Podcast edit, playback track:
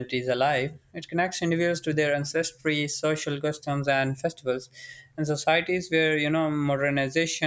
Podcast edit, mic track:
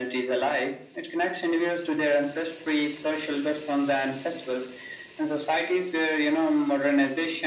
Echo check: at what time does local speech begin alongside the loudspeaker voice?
none

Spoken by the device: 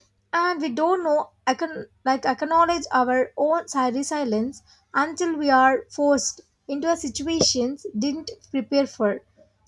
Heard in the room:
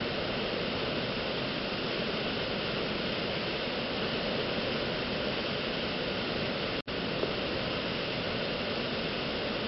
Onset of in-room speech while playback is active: none

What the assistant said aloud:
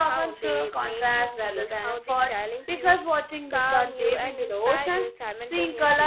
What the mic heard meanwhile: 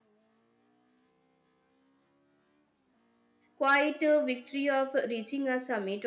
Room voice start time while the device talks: 3.6 s

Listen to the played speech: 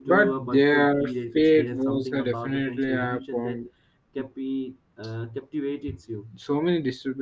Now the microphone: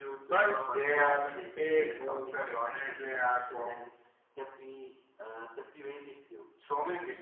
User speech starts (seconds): none

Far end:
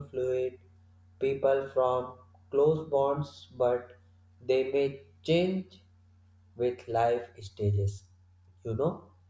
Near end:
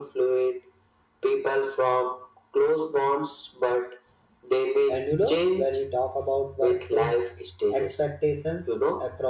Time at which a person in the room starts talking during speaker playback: 4.9 s

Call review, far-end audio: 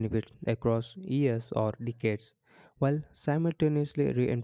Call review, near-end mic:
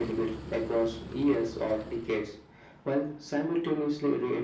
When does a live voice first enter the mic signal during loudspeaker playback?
none

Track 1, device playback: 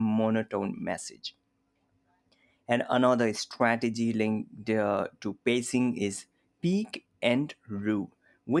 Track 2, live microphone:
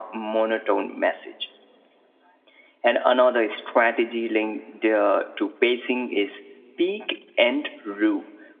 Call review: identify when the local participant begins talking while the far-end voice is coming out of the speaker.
none

